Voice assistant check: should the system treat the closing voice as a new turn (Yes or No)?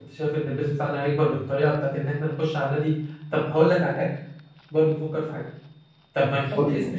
No